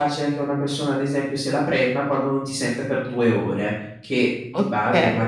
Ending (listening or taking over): listening